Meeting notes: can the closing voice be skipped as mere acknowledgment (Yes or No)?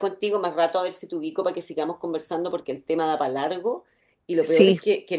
Yes